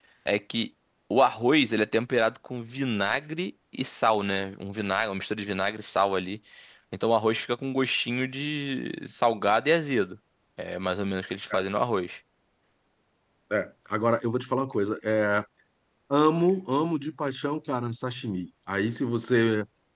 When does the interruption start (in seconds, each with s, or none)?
none